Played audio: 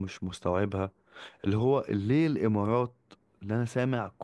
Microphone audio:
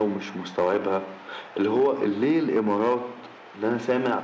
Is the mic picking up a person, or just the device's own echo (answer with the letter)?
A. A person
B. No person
B